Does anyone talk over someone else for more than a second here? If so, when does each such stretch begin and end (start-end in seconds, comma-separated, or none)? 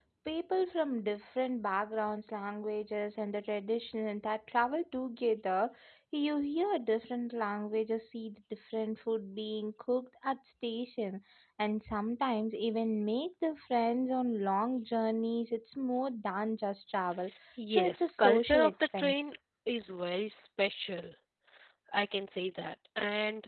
17.7-19.3